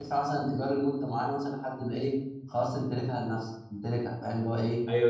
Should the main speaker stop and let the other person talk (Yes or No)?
Yes